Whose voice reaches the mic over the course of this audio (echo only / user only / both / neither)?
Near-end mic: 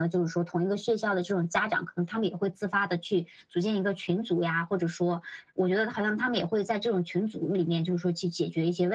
echo only